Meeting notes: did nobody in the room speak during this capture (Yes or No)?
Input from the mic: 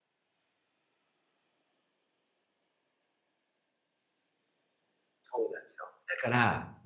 No